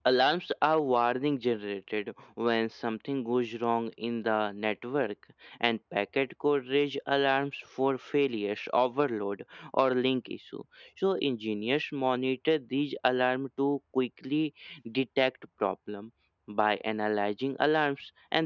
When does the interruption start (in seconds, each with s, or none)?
none